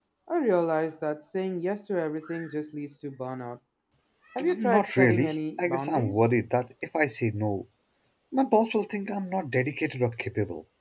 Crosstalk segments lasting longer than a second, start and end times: 4.6-6.2

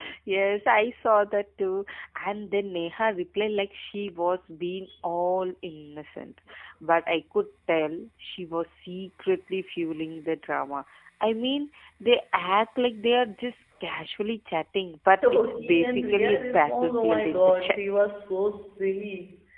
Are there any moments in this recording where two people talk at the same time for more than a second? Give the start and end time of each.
15.2-17.8

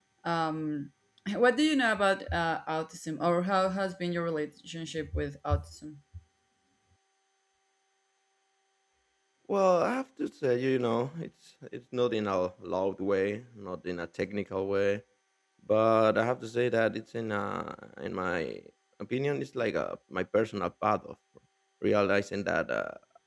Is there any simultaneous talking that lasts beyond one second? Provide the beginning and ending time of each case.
none

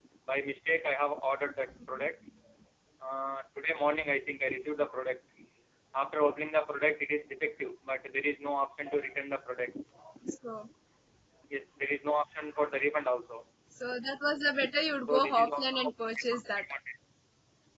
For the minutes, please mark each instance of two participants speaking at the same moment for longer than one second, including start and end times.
15.1-16.6

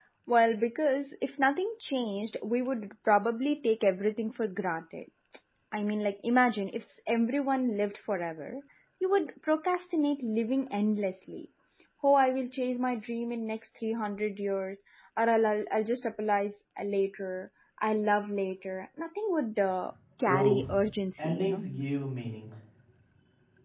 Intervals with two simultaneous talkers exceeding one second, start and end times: none

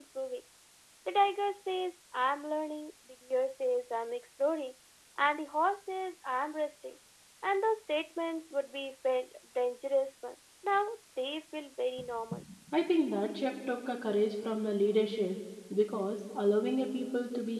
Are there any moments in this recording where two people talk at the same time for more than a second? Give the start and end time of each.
none

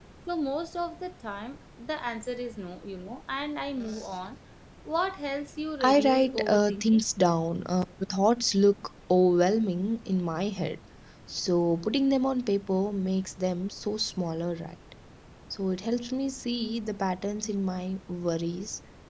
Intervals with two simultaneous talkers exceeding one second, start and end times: 5.8-7.0

